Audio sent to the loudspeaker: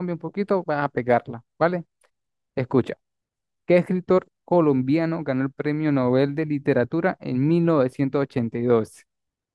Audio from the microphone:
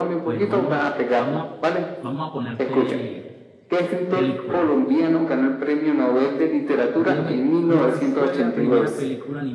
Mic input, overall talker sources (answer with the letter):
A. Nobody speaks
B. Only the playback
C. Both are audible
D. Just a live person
C